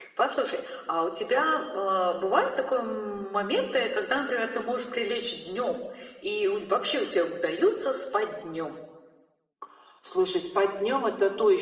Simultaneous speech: No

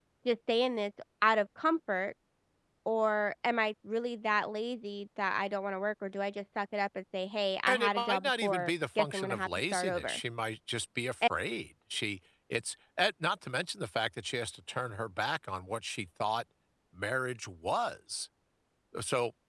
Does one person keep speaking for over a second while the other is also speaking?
Yes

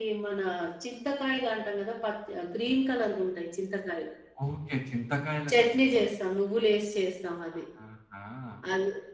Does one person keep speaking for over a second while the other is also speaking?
No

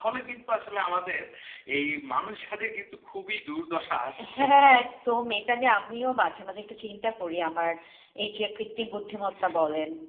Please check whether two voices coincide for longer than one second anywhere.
No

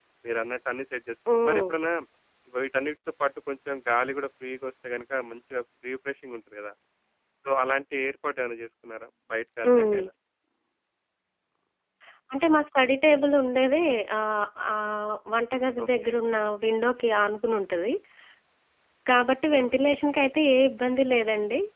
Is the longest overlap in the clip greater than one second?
No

